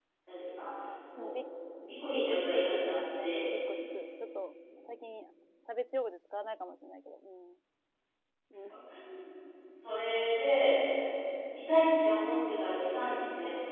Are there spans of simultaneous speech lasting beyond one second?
Yes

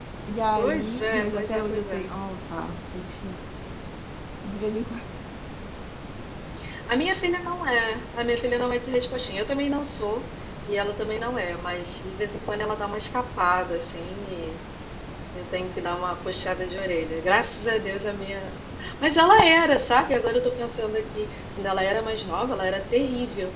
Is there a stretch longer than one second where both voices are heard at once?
Yes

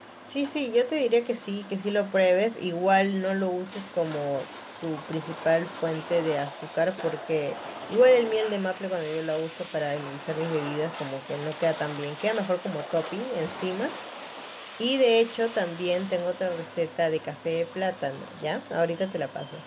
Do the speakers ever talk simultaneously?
No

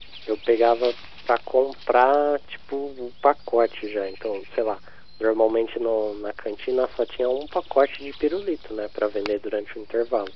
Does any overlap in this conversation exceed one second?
No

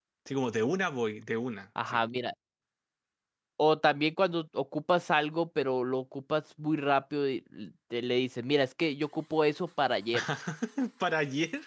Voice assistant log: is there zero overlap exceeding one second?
Yes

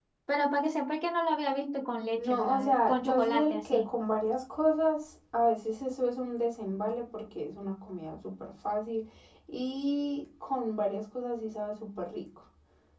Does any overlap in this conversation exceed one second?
Yes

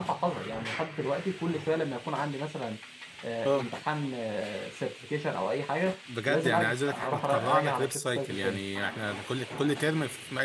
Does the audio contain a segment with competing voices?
Yes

